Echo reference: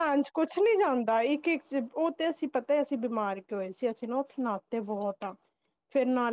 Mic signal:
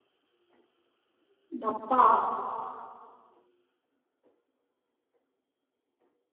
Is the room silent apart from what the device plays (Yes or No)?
No